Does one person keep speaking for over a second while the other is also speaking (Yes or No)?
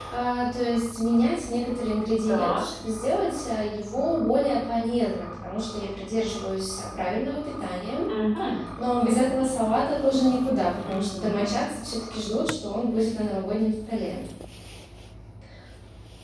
No